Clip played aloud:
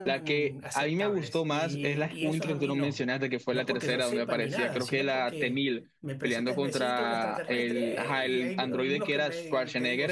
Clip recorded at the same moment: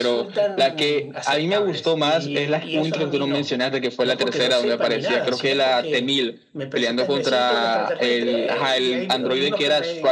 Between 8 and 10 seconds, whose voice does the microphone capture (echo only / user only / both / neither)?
echo only